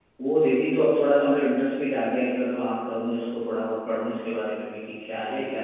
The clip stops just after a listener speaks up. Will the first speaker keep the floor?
No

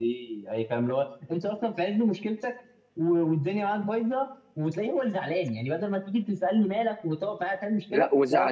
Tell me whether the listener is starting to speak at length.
Yes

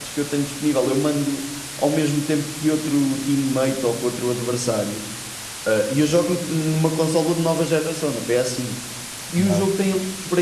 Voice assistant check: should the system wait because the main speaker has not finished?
Yes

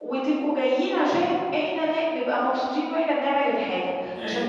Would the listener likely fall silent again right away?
Yes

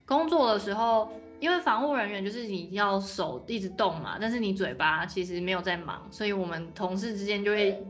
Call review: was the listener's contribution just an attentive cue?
Yes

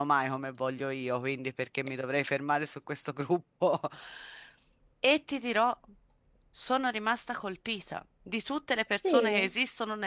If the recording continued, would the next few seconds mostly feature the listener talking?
No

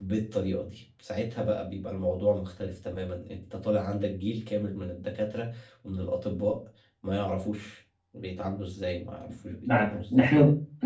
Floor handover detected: Yes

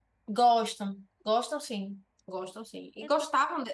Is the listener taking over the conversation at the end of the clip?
No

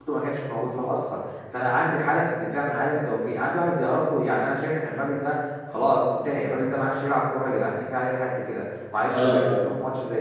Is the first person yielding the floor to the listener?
No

